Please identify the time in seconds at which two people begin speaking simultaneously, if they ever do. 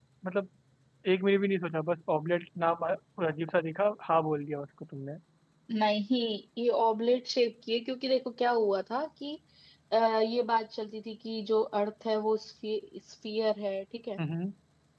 none

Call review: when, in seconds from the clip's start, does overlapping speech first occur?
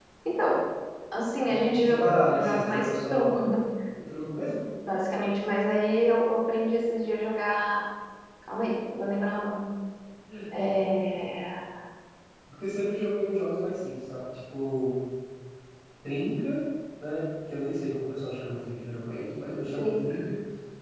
1.5 s

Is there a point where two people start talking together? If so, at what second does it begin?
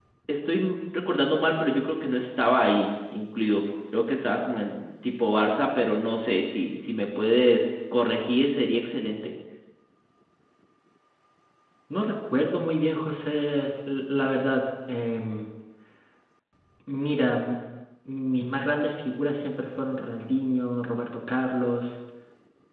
none

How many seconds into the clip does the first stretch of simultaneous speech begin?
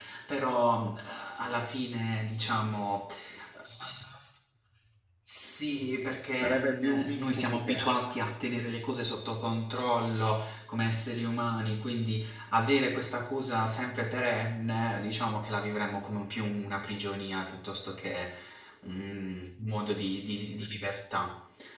6.4 s

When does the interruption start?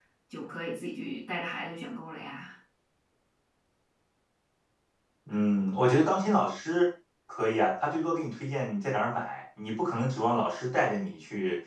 none

